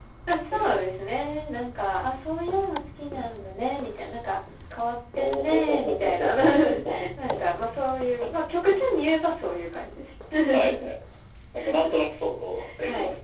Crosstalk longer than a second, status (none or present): present